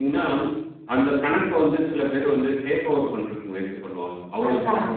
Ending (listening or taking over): listening